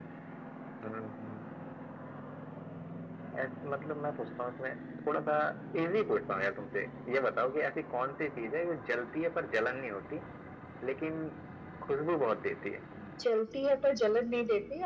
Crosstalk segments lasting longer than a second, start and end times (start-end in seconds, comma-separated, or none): none